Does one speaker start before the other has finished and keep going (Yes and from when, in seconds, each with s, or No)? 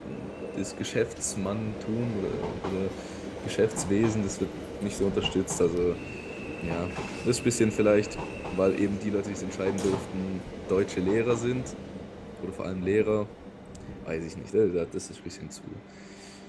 No